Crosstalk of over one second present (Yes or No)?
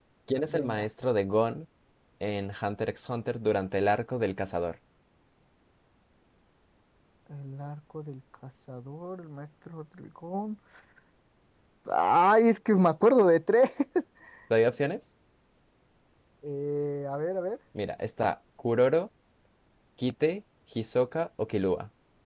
No